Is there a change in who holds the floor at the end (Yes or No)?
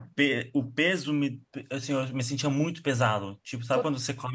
No